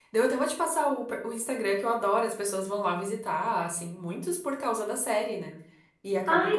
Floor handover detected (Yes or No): No